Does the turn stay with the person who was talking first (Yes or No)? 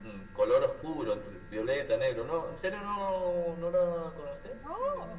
No